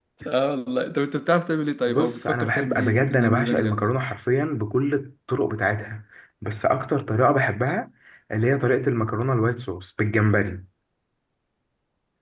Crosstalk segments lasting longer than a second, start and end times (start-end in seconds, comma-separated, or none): 1.9-3.9